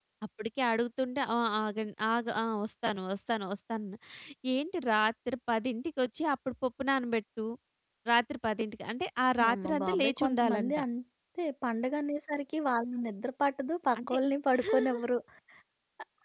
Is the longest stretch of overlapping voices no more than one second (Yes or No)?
No